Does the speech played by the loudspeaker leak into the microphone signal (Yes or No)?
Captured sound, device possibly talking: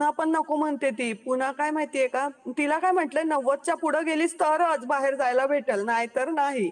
No